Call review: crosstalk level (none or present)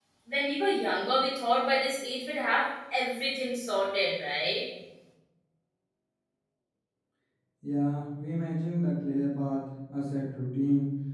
none